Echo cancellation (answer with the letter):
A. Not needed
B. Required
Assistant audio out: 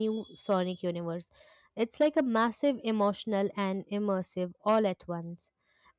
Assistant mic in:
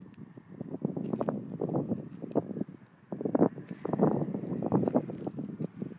A